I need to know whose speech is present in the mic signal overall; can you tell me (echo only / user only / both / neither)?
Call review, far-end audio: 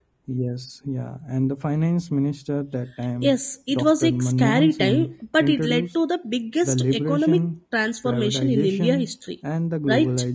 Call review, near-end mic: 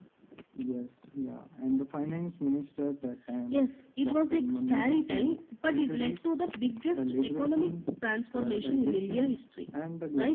echo only